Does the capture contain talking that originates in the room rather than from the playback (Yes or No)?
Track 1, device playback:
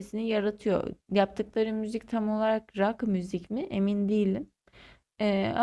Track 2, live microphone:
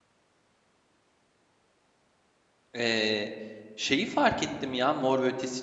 Yes